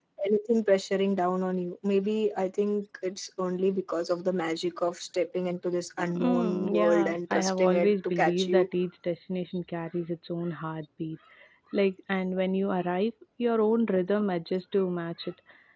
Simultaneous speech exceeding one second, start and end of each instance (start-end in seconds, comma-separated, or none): 6.0-8.7